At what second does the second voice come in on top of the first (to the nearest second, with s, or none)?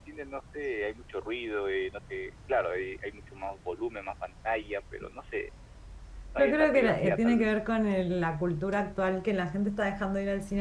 6 s